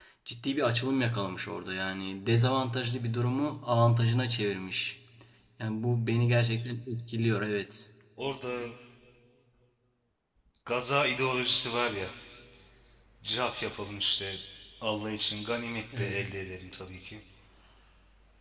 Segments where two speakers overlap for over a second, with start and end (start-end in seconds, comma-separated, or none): none